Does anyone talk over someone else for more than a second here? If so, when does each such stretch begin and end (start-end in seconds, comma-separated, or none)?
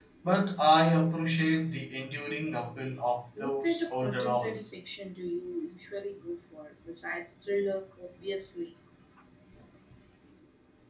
3.4-4.6